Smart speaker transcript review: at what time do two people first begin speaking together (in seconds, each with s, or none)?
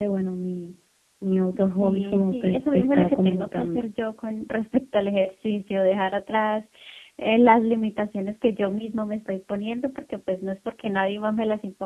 1.8 s